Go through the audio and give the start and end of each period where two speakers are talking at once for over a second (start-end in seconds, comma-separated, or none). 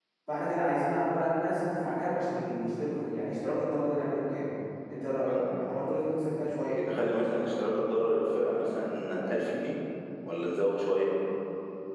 none